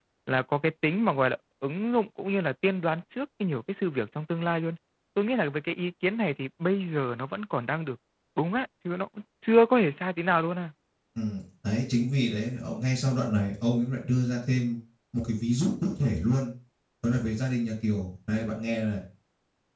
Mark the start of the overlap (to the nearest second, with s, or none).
none